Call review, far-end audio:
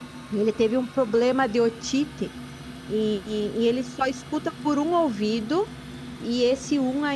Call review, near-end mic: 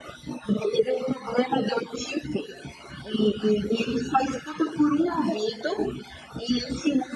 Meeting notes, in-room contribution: none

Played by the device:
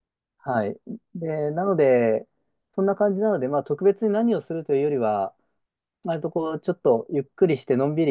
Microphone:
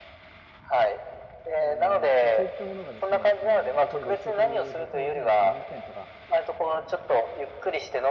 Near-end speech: present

